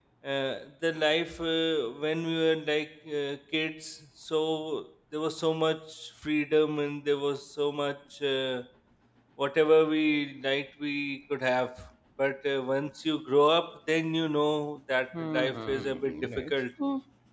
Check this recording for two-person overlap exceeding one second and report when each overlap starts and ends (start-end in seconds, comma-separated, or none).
15.3-16.5